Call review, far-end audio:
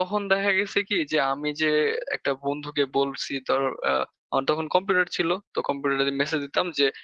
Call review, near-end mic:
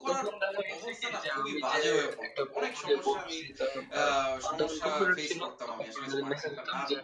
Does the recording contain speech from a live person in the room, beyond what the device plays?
Yes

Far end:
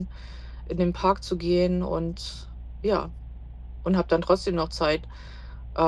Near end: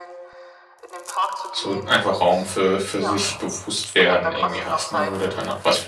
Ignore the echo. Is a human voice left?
Yes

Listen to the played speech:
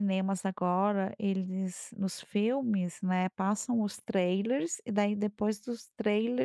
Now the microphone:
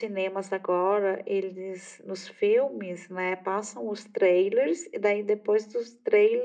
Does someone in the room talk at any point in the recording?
No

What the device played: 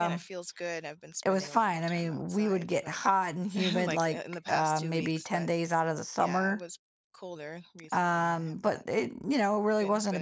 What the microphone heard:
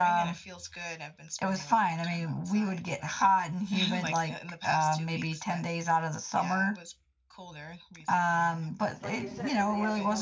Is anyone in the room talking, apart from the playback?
Yes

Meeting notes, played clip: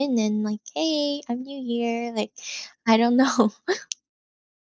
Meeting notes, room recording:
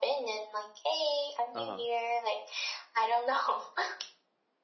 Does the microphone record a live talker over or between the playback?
Yes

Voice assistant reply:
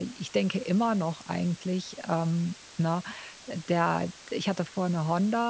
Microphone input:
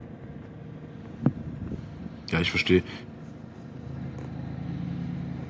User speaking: Yes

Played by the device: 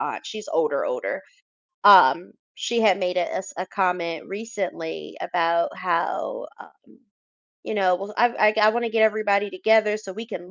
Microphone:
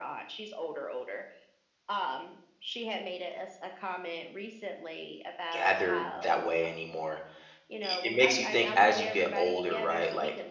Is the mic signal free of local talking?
No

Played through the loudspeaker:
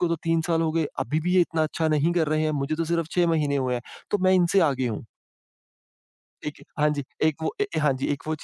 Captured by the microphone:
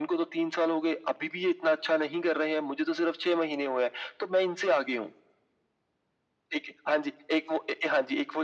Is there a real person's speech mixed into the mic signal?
No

